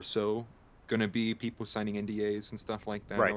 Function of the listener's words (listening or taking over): listening